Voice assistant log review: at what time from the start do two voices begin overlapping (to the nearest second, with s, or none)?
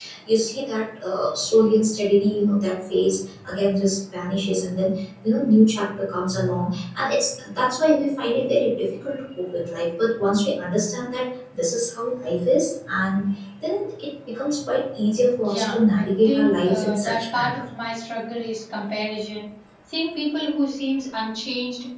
15 s